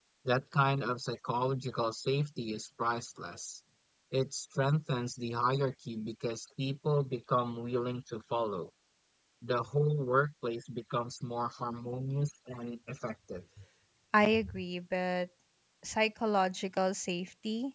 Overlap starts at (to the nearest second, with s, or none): none